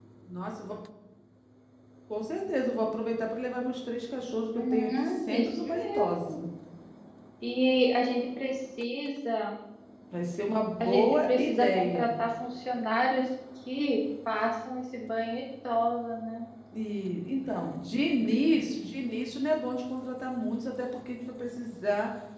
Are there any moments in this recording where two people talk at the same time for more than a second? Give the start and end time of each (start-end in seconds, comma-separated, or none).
4.5-6.4, 10.8-12.1